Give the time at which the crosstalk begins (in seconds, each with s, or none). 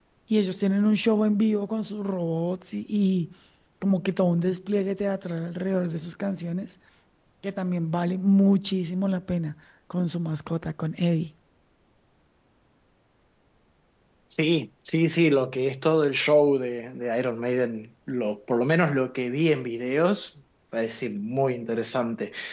none